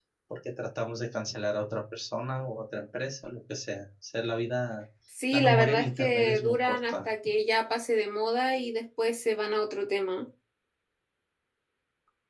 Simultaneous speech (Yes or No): Yes